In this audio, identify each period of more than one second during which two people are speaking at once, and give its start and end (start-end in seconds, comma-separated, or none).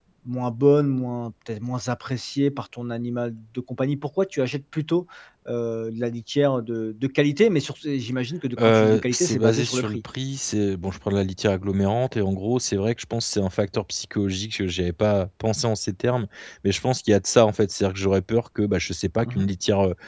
8.6-10.0